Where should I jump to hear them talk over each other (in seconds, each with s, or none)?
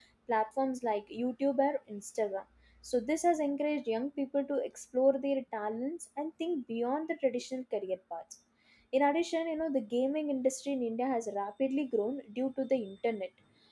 none